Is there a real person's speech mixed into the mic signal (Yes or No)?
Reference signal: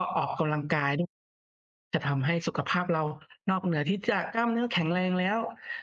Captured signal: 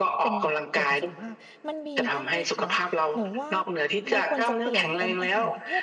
Yes